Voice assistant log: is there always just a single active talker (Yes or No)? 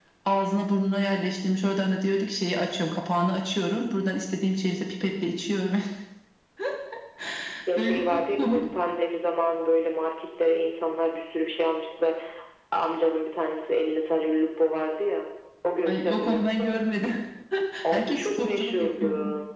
No